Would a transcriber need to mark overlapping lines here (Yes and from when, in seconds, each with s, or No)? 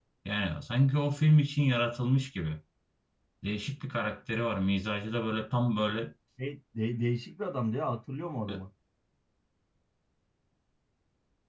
No